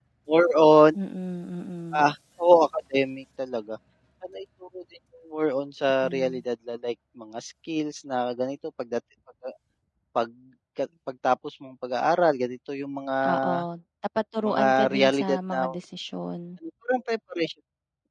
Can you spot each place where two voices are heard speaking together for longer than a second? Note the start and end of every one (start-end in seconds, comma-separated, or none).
14.4-15.7